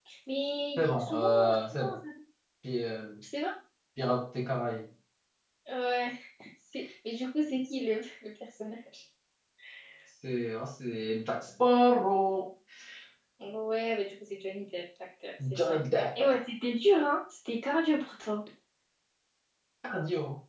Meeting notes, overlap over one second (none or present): present